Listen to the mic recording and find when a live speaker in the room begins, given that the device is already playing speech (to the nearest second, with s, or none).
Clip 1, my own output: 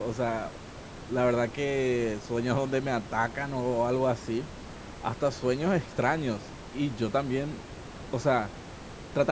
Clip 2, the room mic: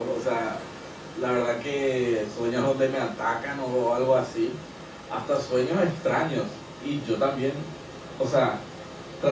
none